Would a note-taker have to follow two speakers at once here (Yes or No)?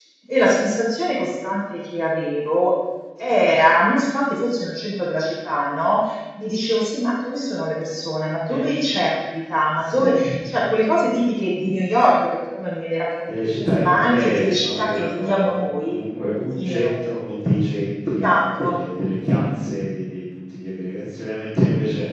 Yes